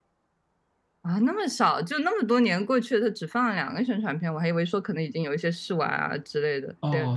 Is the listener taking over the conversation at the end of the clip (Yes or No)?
Yes